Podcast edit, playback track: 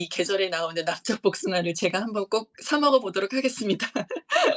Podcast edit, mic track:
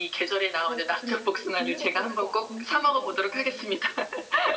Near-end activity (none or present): present